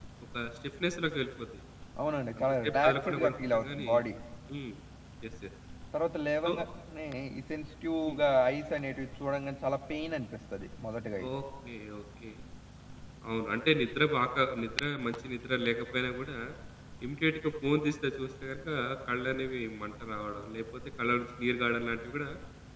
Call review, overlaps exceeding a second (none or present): present